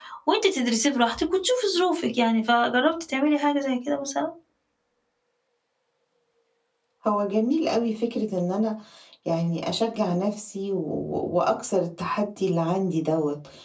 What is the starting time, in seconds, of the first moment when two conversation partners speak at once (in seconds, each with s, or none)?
none